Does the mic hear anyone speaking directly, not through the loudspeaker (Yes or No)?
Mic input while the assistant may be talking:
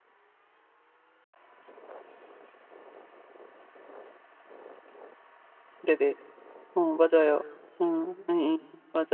Yes